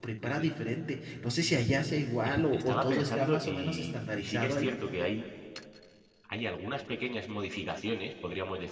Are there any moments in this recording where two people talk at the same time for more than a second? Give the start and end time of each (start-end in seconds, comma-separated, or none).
2.2-4.7